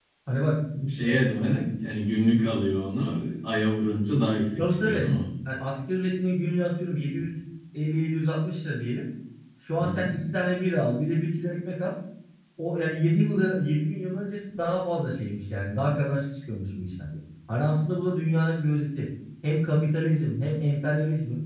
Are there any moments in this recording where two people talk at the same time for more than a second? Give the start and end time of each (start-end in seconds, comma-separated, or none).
none